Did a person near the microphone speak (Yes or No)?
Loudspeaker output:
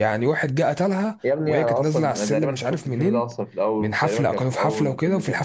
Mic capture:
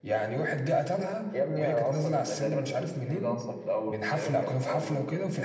No